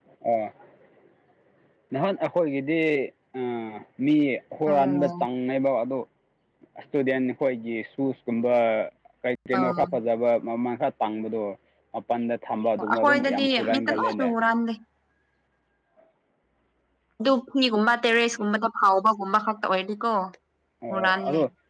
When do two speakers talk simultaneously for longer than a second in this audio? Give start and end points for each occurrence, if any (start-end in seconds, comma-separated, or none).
12.8-14.3